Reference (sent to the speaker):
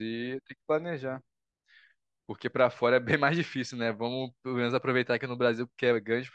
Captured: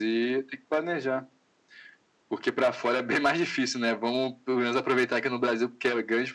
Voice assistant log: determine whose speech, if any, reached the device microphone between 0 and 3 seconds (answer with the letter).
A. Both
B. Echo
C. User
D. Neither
B